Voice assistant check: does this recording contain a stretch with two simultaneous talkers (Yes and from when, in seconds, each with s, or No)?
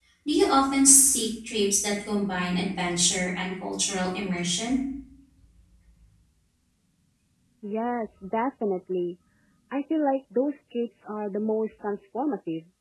No